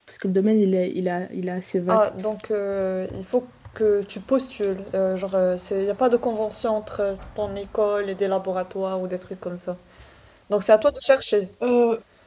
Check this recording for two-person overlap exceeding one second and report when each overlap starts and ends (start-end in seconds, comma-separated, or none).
none